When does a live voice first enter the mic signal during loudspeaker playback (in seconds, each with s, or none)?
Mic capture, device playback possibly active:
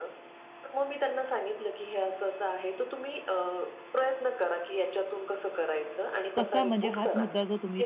6.3 s